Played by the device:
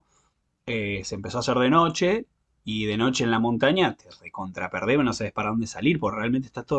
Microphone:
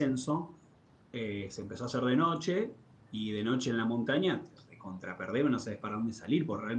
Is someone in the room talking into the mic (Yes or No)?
No